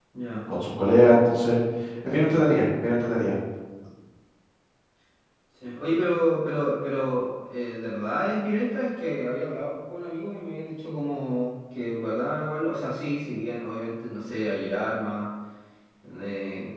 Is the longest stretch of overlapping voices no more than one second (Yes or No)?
Yes